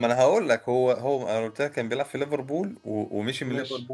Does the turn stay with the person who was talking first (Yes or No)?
Yes